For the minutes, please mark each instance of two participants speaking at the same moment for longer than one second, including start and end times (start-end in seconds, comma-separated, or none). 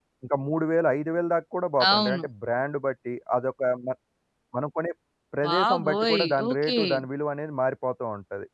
5.4-6.8